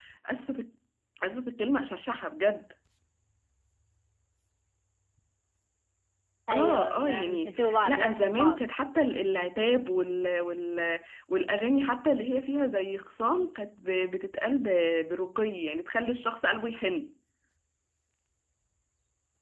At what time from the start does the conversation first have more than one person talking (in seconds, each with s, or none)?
6.5 s